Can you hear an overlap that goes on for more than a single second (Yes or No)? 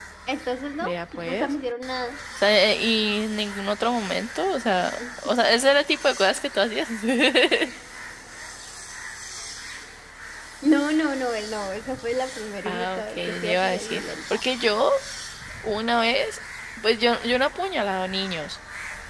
Yes